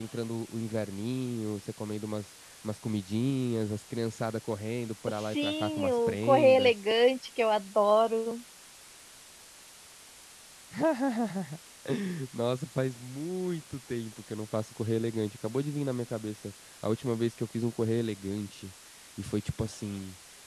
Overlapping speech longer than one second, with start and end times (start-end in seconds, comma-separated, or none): 5.2-6.7